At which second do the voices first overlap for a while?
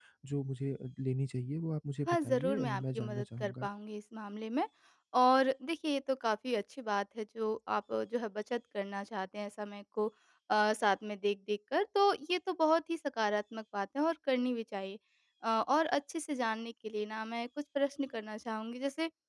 2 s

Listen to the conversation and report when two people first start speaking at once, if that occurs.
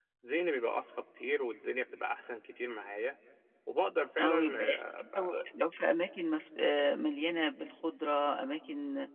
4 s

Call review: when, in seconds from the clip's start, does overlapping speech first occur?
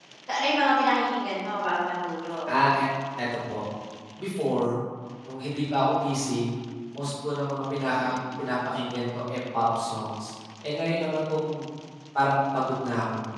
none

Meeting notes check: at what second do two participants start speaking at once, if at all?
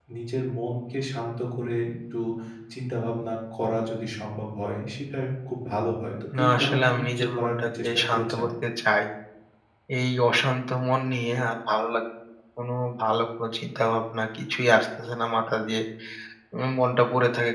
6 s

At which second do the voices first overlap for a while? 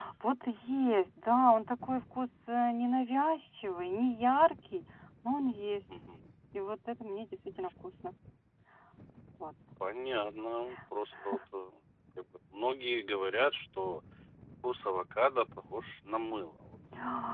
none

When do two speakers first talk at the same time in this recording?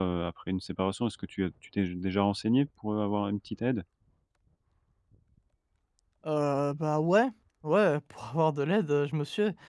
none

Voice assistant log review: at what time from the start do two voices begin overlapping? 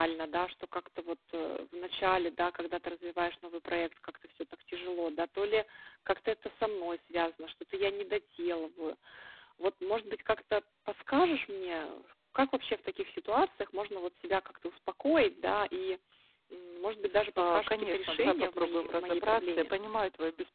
17 s

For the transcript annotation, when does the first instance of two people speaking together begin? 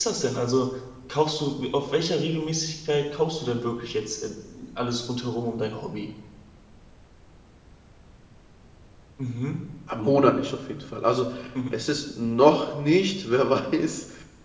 none

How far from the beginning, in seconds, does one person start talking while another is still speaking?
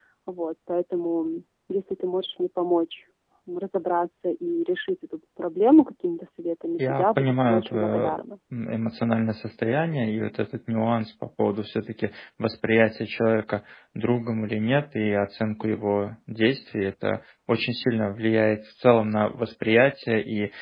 7 s

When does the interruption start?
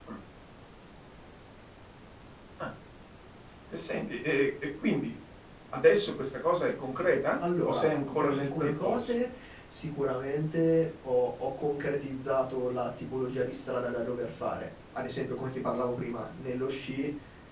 7 s

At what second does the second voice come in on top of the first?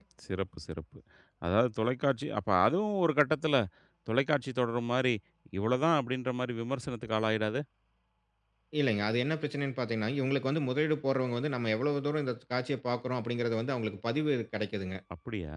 none

